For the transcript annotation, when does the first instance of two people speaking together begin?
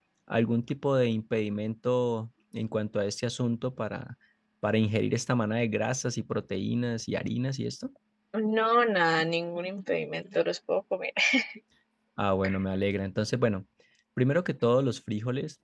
none

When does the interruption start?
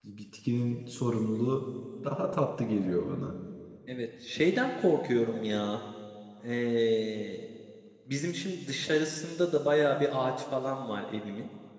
none

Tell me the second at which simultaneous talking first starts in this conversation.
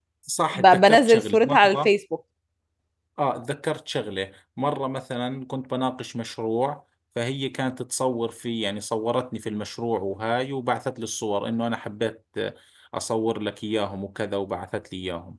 0.5 s

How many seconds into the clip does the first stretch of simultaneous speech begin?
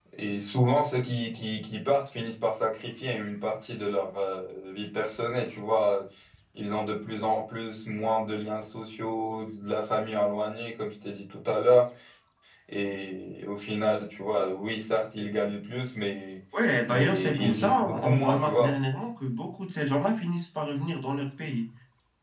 16.9 s

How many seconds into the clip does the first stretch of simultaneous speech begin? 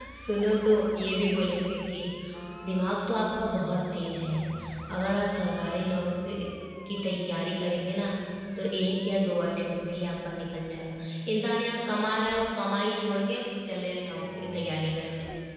none

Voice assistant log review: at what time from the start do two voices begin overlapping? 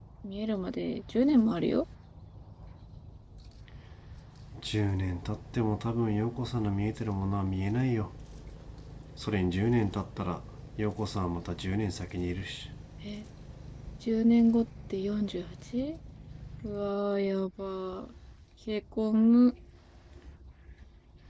none

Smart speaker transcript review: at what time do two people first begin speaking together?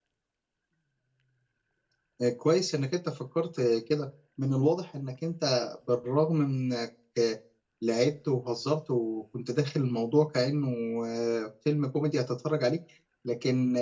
none

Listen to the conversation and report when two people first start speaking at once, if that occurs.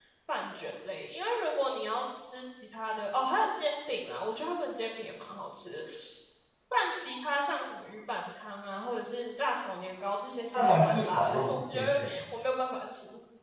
10.5 s

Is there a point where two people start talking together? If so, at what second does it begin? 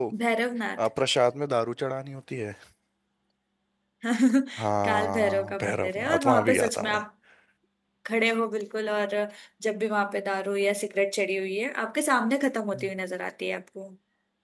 4.8 s

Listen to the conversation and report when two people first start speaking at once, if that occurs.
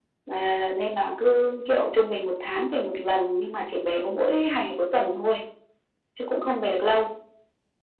none

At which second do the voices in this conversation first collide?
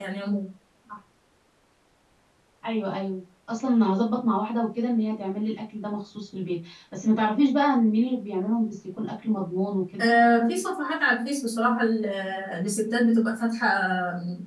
none

